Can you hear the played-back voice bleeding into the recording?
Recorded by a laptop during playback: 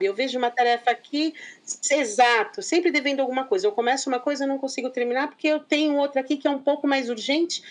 Yes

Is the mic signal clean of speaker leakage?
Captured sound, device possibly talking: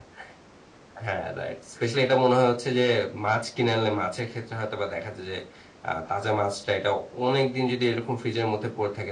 Yes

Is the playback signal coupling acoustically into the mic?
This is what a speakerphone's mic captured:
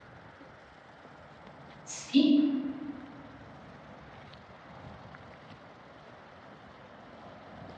No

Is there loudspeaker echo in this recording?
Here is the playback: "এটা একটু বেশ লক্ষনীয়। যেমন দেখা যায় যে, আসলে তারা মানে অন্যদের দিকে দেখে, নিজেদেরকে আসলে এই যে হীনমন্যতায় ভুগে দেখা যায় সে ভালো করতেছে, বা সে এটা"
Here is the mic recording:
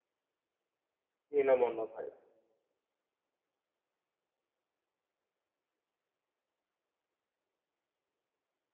No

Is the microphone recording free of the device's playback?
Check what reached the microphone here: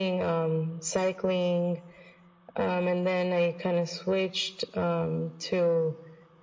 No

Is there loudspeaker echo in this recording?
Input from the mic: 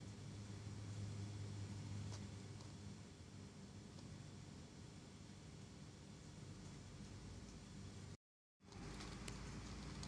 No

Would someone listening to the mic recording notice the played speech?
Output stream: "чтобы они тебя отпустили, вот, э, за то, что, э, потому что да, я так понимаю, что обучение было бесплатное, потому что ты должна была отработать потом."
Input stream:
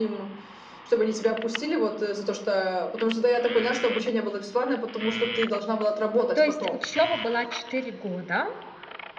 Yes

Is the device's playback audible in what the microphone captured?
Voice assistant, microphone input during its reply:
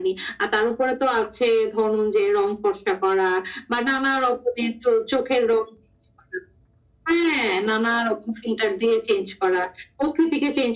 Yes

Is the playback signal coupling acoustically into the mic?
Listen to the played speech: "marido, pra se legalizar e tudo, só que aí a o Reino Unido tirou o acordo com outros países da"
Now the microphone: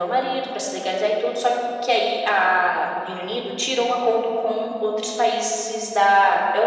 Yes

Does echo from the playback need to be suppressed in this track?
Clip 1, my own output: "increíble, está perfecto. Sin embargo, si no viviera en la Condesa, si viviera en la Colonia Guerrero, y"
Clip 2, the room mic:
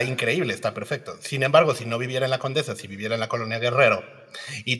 Yes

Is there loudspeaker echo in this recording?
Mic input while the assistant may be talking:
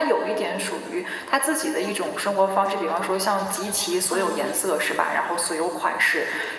Yes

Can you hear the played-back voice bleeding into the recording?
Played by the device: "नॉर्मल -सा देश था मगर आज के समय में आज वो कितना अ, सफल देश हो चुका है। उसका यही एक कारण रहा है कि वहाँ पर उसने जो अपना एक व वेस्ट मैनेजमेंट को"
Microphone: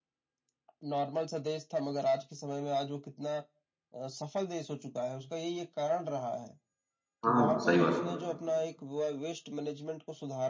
Yes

